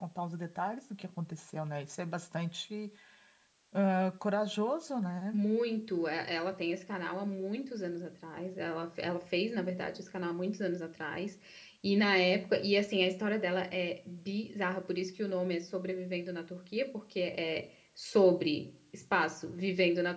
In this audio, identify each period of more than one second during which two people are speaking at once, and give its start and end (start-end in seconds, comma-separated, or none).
none